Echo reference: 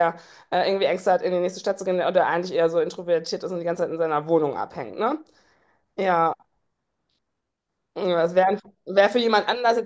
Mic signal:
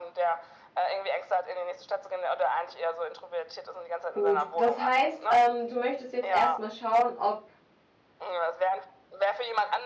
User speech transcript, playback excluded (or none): Gut, das heißt, ähm, du möchtest jetzt erstmal schauen, ob